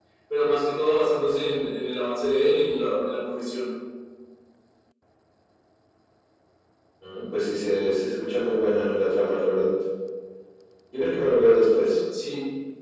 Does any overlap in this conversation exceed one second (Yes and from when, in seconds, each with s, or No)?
No